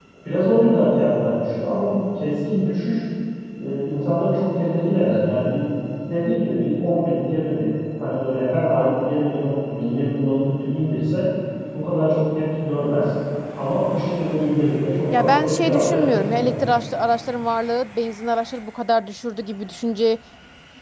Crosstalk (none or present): present